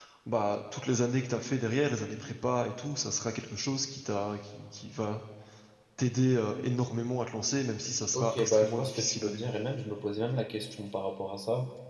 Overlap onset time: 8.1 s

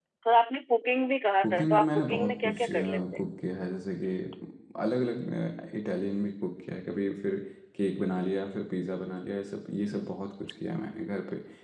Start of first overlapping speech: 1.4 s

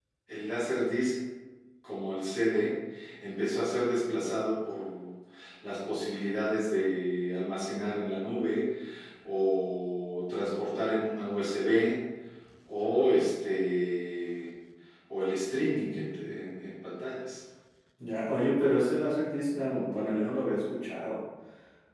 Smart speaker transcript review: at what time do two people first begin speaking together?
none

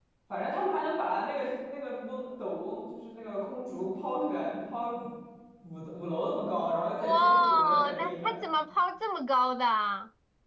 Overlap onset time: 7.0 s

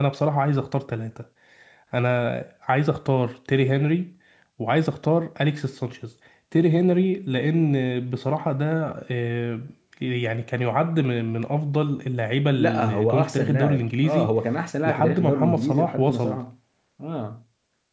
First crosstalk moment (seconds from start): 12.5 s

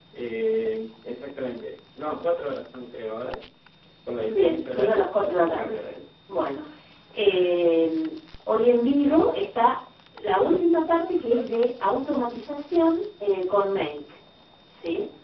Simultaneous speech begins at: 4.3 s

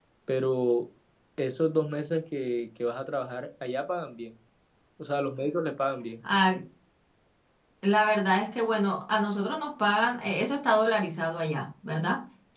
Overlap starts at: none

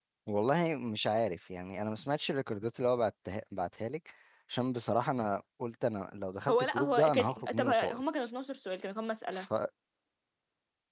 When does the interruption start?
6.5 s

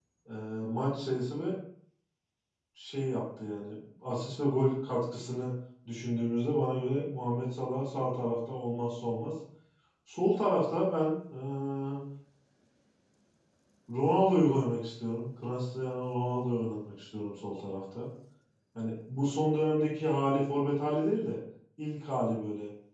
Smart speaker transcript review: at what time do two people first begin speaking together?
none

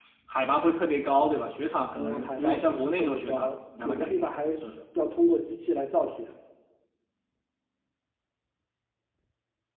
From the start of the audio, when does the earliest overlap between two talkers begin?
1.9 s

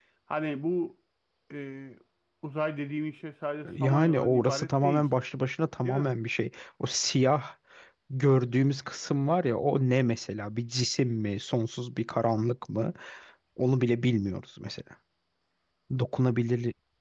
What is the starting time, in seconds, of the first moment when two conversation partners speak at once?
3.8 s

